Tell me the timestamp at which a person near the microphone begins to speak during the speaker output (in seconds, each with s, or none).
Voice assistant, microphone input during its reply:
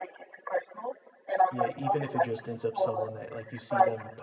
1.5 s